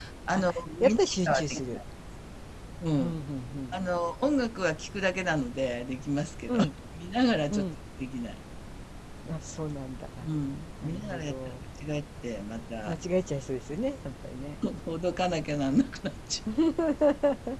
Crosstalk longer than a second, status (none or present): present